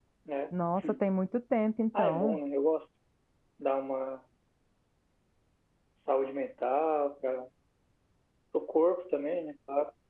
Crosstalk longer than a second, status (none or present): none